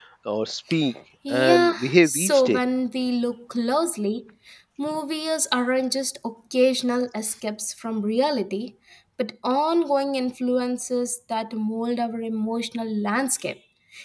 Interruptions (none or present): present